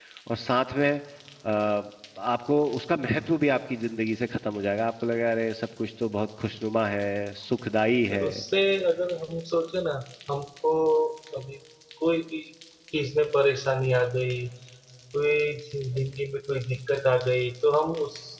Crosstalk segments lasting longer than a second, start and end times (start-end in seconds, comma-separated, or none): none